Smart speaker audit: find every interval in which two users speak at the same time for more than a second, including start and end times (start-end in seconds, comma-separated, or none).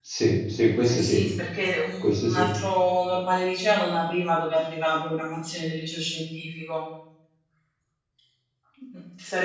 none